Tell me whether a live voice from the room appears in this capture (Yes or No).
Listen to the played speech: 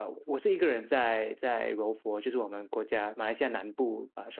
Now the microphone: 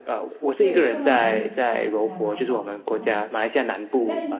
Yes